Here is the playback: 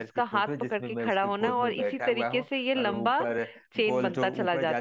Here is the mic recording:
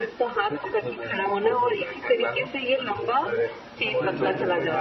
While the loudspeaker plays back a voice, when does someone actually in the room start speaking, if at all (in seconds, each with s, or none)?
3.9 s